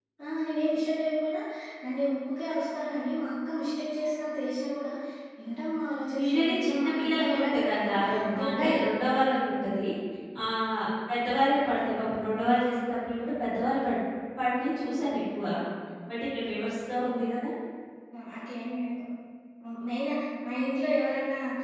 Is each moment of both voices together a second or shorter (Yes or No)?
No